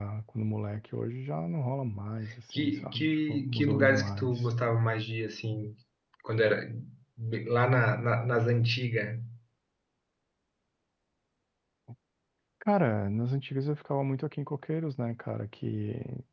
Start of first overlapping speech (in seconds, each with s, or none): 2.5 s